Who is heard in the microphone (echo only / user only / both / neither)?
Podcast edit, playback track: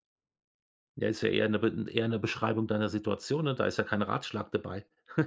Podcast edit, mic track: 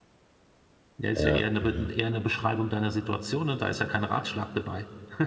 both